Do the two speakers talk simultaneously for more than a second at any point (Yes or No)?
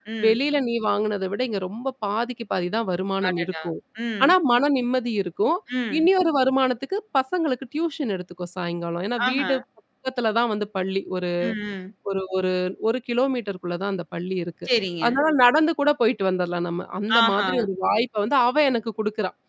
No